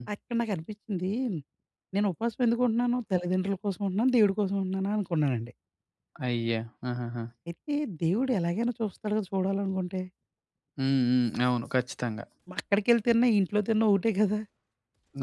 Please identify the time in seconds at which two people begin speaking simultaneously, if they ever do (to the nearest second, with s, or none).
none